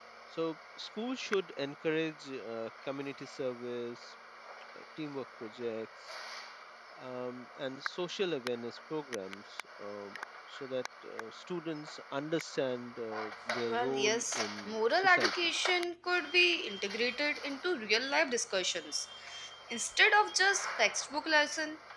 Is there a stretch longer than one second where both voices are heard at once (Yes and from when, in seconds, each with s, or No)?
Yes, from 13.6 s